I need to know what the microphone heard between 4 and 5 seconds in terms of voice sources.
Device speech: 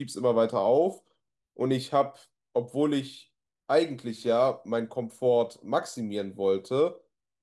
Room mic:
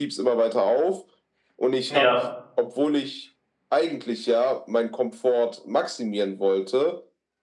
echo only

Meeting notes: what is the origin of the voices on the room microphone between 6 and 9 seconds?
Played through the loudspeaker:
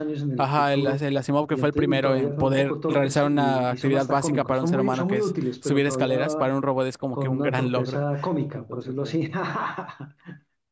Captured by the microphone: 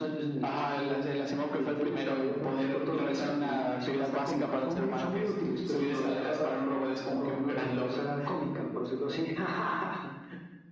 echo only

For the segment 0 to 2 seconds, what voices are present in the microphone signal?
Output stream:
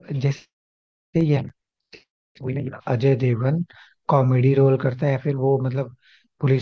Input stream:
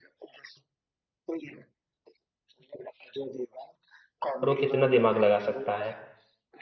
echo only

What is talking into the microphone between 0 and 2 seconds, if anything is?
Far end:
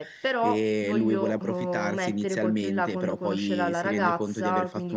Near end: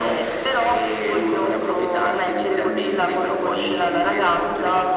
echo only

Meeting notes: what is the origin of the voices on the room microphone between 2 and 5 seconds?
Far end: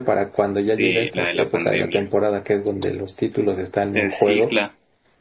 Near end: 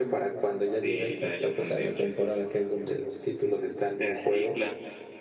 echo only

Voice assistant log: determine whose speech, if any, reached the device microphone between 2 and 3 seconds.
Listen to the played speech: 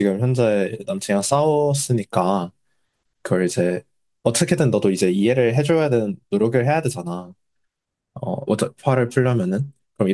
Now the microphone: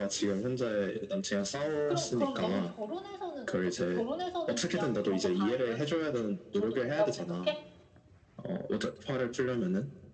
both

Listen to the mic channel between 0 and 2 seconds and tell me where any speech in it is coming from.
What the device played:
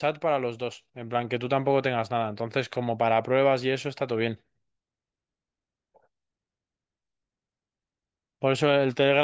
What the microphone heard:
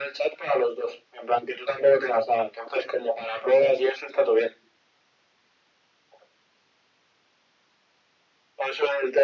echo only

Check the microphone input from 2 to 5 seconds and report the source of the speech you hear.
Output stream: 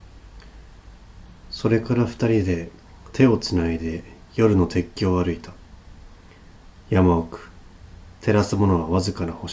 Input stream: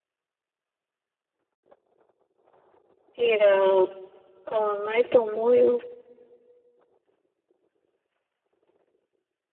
user only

